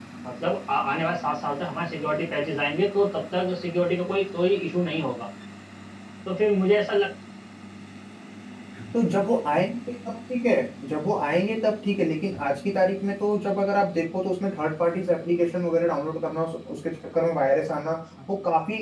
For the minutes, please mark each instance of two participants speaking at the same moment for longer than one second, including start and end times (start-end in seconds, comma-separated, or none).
none